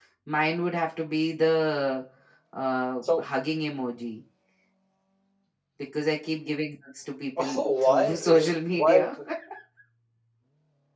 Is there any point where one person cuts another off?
Yes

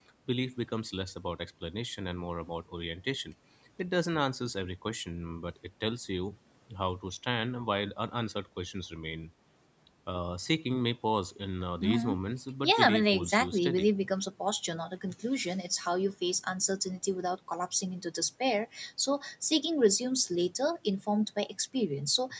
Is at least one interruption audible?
Yes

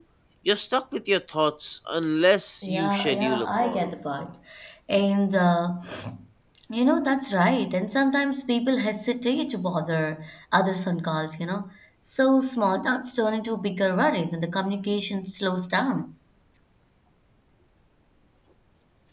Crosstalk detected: Yes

